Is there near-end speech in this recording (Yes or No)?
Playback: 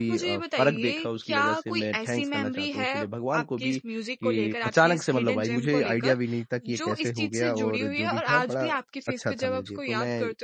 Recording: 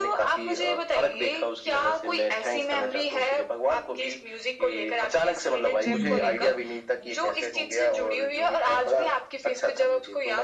Yes